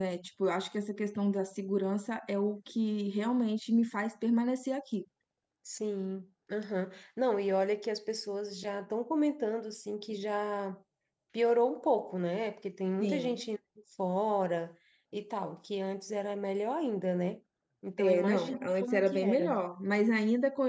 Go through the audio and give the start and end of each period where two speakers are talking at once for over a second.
18.0-19.6

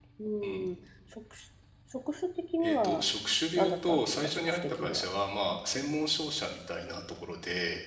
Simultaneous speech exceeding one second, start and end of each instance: 3.6-5.0

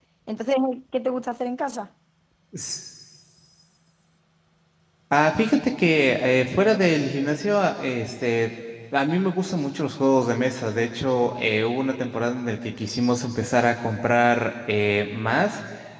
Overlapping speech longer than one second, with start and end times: none

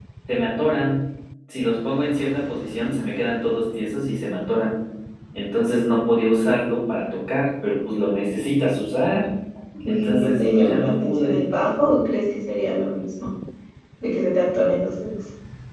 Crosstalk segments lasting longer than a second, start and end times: 9.9-11.4

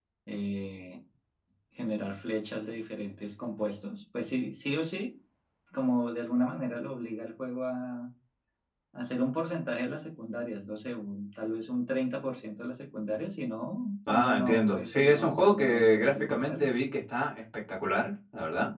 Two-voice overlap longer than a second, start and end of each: 14.1-16.7

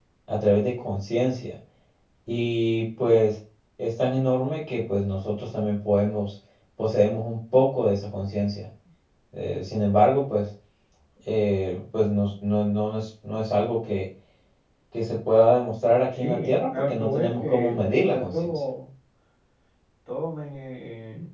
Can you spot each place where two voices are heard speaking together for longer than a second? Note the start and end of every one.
16.1-18.6

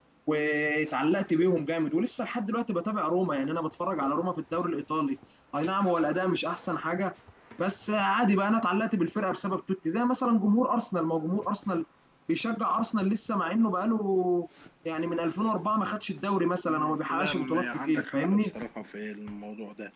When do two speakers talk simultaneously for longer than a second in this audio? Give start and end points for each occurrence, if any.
16.6-18.5

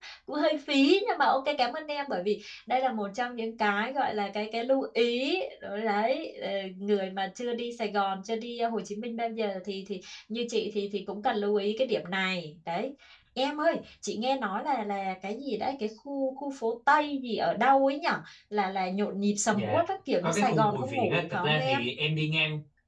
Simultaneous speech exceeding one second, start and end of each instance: 20.2-21.8

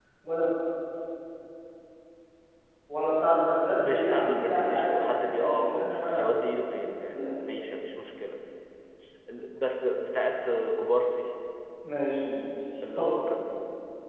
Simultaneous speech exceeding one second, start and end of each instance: 3.8-6.3

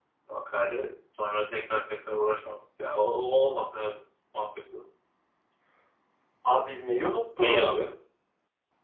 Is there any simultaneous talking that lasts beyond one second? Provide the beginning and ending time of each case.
none

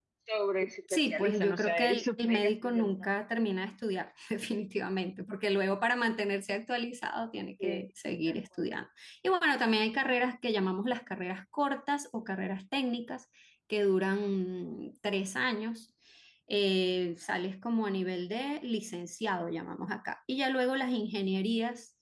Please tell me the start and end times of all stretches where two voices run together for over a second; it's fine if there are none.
0.9-3.1

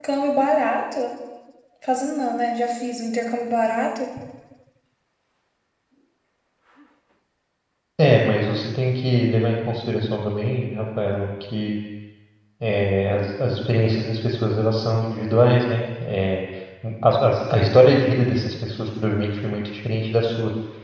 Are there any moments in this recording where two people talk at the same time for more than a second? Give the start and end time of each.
none

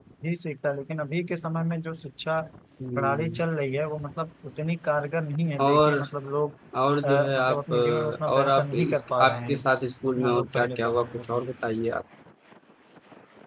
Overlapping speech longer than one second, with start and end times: 7.0-9.6, 10.1-11.4

